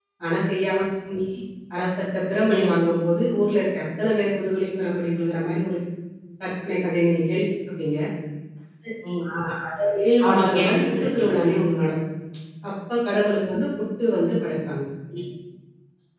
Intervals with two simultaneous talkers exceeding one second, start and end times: 10.2-11.6

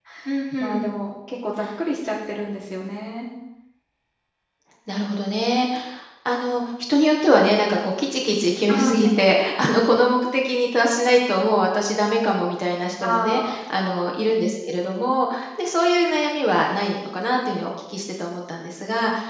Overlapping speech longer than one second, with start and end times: none

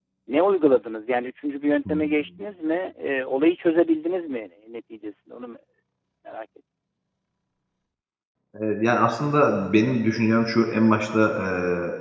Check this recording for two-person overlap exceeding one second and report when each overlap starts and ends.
none

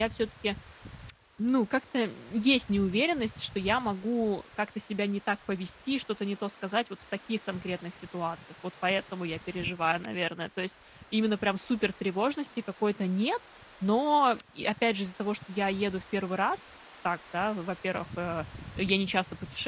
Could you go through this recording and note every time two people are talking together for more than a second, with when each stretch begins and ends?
none

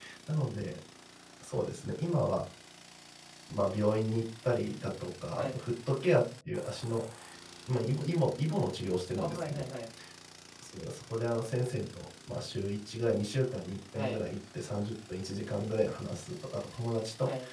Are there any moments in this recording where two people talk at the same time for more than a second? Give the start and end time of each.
none

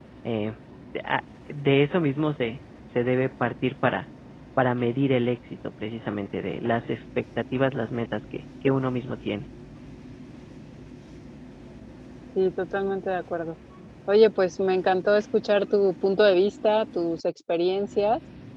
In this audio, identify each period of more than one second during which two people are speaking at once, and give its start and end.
none

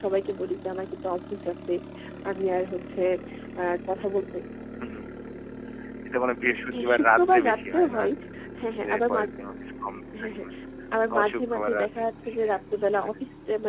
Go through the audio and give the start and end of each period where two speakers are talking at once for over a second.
6.7-8.0, 11.1-13.1

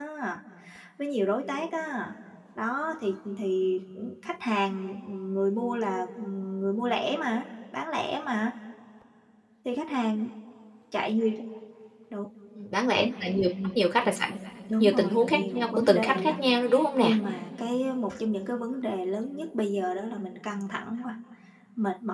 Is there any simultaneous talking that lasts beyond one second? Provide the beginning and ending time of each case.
14.8-16.3

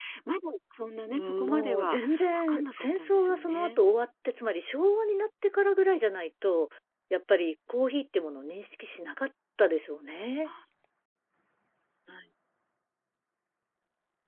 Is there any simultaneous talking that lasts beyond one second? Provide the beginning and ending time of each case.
1.1-3.8

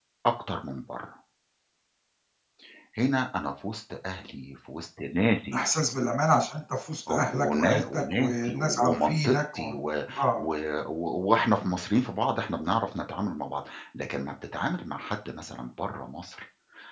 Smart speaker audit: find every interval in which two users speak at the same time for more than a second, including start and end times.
7.1-9.7

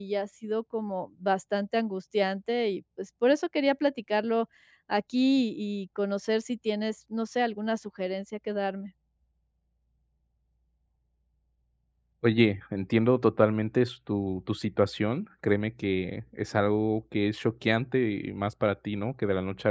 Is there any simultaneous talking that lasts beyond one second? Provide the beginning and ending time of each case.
none

